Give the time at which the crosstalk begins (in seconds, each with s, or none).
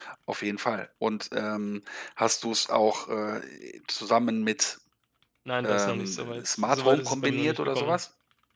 5.6 s